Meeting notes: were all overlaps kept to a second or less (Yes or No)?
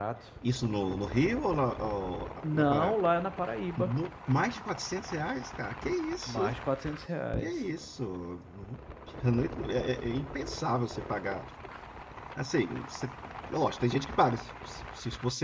Yes